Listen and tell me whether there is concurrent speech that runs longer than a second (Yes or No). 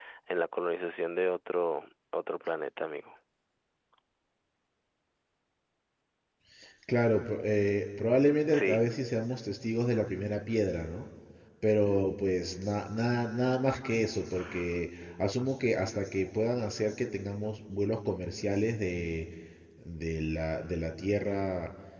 No